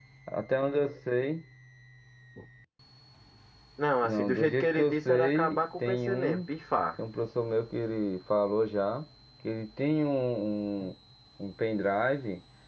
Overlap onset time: 4 s

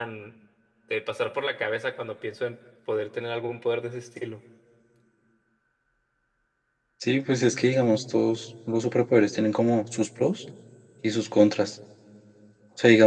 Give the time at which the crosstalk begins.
none

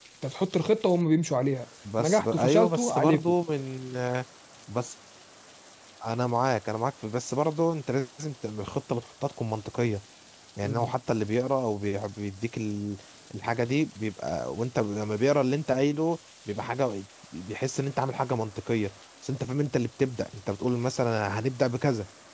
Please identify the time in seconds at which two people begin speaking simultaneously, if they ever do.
2 s

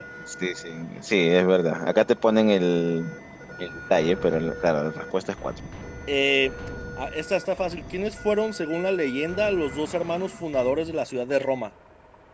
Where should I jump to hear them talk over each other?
none

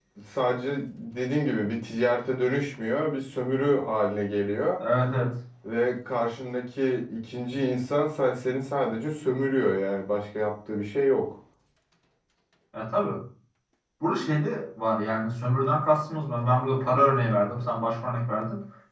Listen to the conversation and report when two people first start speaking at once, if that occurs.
none

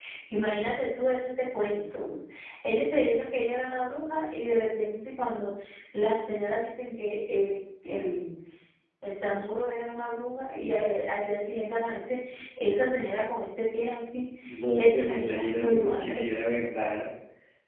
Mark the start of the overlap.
15 s

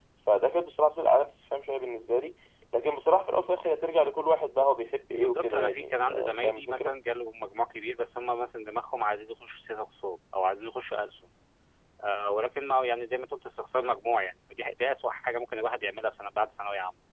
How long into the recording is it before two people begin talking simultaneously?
5 s

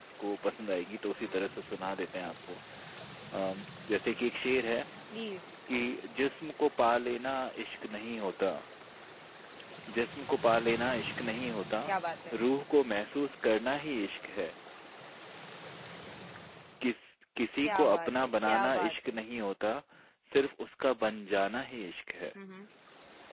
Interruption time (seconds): 18 s

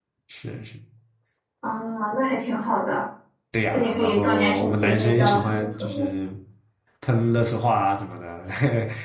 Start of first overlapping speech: 4 s

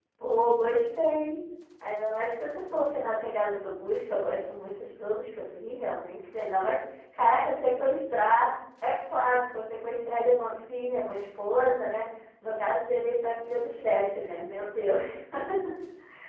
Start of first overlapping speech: none

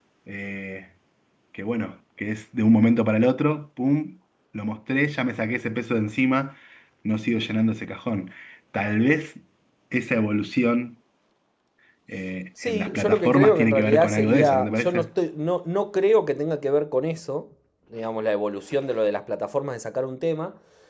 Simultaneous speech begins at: 13 s

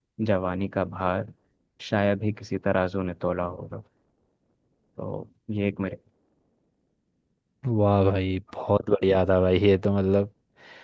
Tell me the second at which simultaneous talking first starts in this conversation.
none

